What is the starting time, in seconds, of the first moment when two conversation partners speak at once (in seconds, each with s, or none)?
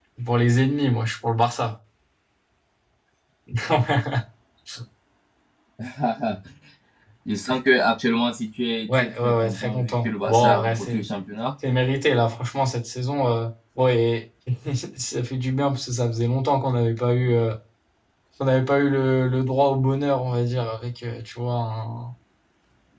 8.9 s